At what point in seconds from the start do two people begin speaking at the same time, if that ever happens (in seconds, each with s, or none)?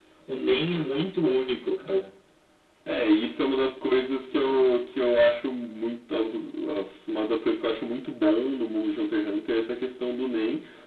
none